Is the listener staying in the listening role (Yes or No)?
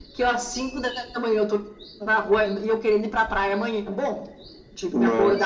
Yes